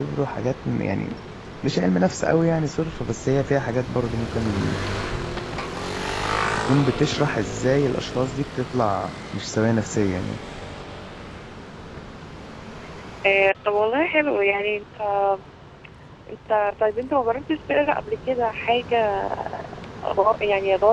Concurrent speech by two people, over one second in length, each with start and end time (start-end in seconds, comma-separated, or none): none